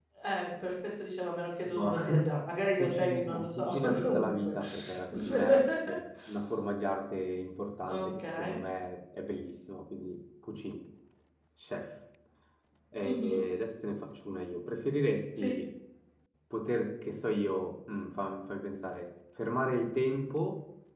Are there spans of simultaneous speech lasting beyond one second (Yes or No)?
Yes